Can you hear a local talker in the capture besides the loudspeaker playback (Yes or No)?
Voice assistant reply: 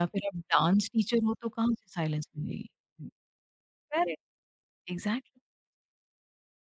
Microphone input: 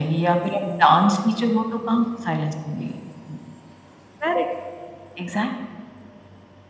No